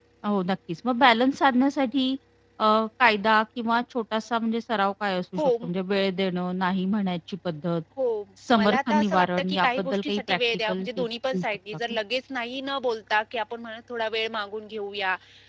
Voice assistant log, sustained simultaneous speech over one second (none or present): present